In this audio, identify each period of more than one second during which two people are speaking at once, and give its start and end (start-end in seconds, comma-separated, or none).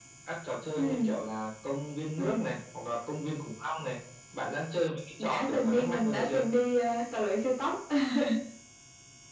5.2-6.5